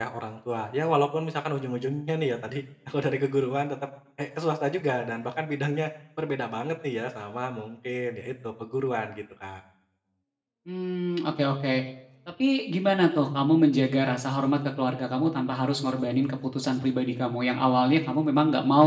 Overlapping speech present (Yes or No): No